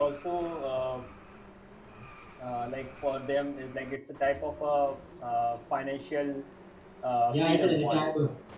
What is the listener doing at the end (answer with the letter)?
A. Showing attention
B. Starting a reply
B